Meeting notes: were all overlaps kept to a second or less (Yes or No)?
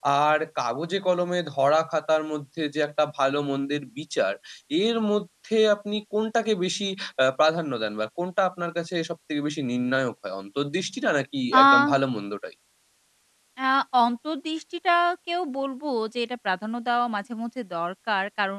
Yes